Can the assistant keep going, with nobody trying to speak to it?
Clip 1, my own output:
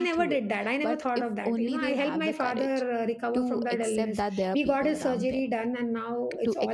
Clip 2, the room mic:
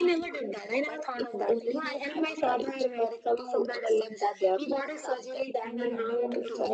No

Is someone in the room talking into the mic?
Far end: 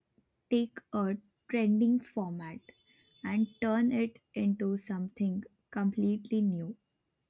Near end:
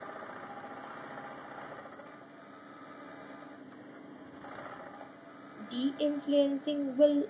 Yes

